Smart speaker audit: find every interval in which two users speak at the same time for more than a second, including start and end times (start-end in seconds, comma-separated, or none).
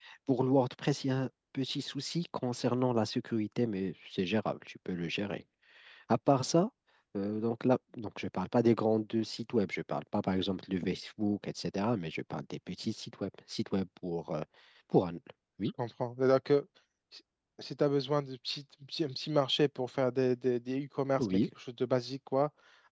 none